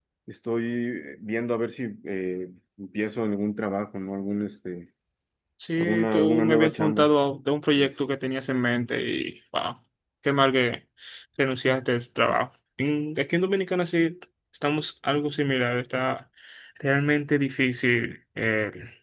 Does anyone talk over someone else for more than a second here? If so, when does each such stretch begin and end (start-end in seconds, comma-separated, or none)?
5.8-7.1